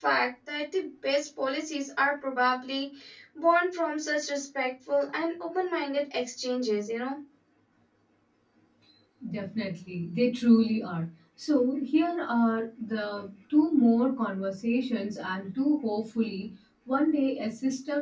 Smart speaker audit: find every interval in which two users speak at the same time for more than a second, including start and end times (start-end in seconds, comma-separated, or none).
none